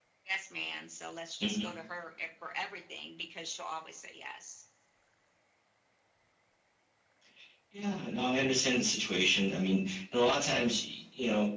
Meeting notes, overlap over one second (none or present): none